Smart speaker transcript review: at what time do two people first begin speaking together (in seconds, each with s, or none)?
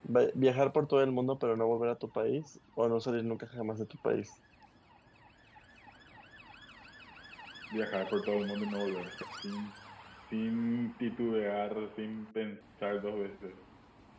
none